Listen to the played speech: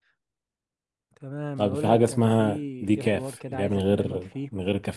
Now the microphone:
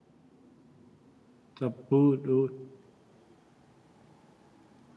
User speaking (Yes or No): Yes